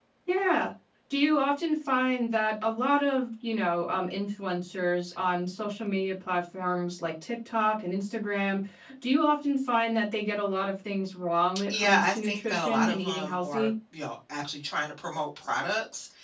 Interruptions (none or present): present